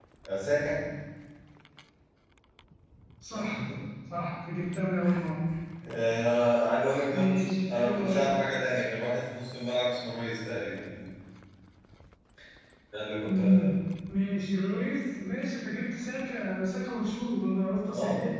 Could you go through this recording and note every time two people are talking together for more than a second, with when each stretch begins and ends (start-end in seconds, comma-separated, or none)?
7.1-8.4